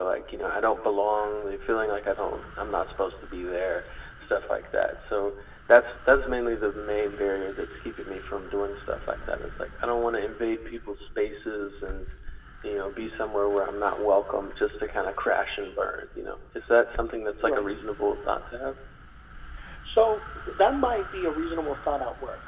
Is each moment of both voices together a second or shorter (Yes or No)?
Yes